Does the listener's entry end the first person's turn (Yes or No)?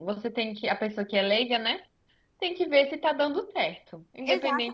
Yes